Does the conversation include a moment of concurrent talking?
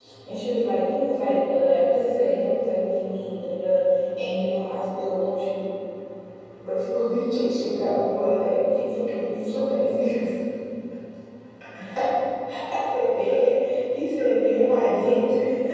No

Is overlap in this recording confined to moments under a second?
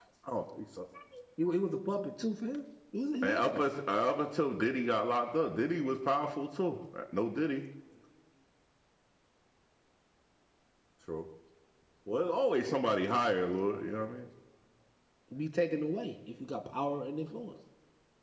Yes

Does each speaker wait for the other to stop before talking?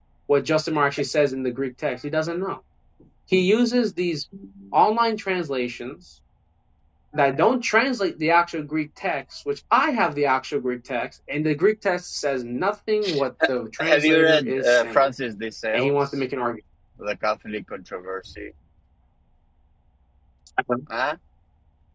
No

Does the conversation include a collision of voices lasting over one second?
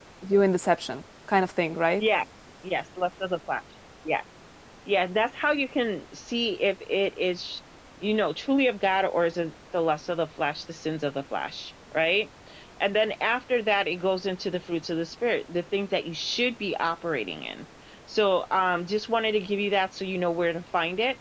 No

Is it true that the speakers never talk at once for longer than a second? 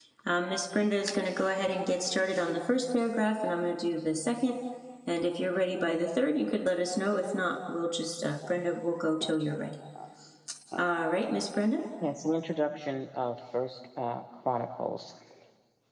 Yes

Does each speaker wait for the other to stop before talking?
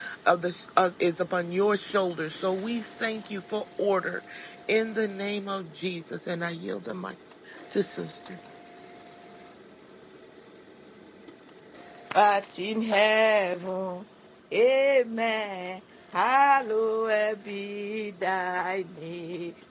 Yes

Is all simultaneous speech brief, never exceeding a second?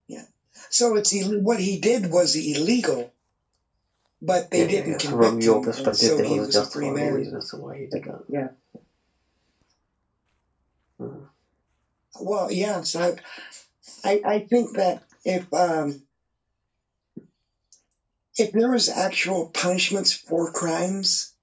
No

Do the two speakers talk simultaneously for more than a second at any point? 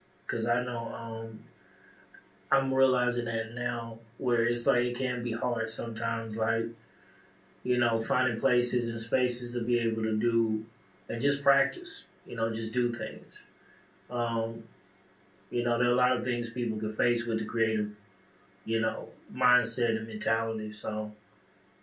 No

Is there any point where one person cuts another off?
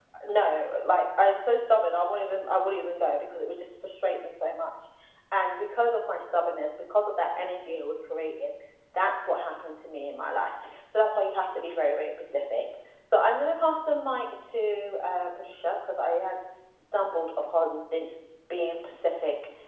No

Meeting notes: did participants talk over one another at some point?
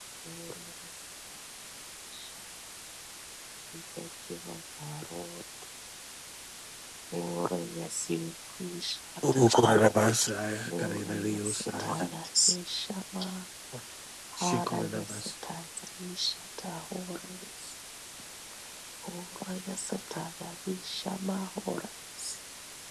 Yes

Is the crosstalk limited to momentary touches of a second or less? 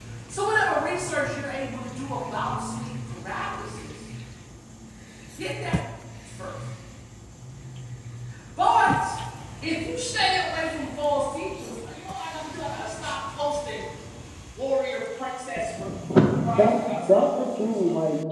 No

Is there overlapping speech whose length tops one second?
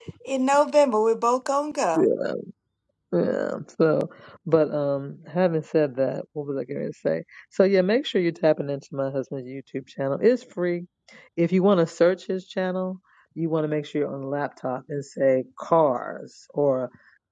No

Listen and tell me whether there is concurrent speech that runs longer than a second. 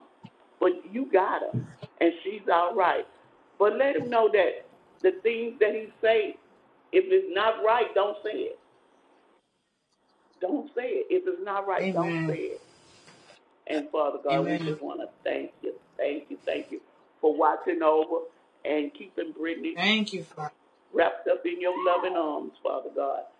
No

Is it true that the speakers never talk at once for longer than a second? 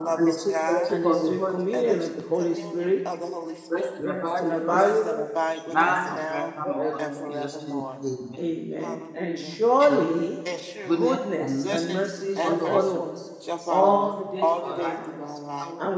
No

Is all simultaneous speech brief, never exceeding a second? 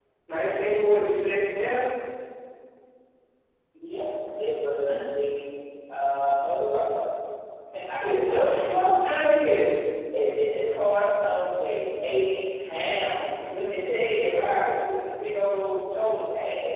Yes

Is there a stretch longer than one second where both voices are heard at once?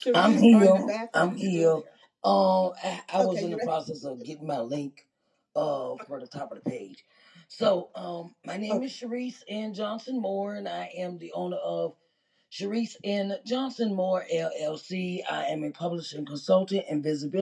Yes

